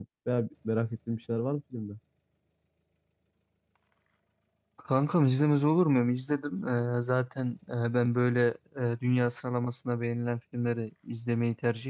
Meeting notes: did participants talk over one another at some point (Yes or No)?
No